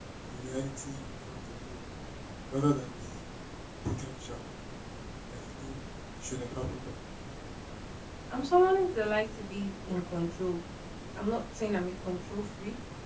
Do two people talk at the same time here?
No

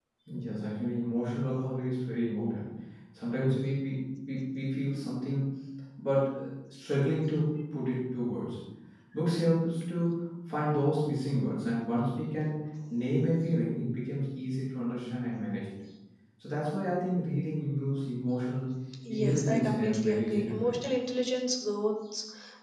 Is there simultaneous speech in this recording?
Yes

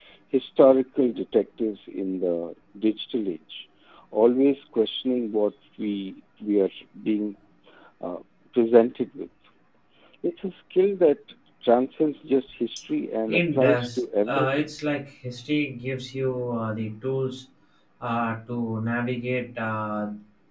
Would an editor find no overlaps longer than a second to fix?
No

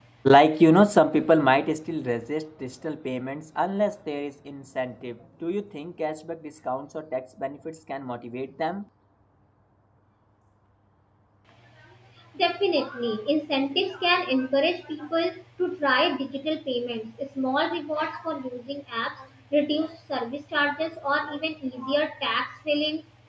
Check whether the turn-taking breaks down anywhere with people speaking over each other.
No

